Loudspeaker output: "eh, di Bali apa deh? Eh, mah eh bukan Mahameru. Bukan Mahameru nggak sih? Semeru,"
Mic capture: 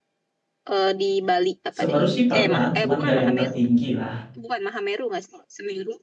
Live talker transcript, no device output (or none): Semeru sih pernah, cuman nggak yang tertinggi lah.